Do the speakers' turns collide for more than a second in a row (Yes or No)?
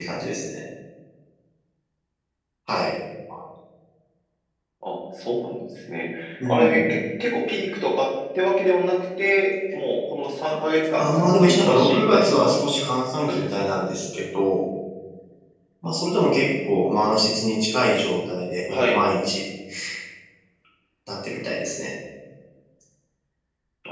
Yes